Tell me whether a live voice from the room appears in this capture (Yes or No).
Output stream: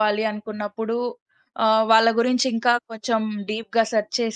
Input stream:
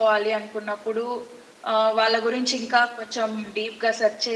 No